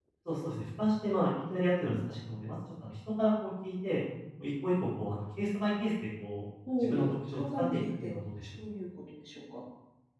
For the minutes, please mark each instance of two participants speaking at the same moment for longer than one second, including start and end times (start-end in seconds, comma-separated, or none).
6.8-8.1